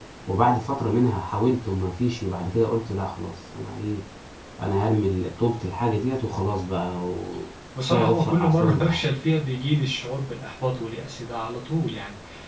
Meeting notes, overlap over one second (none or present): present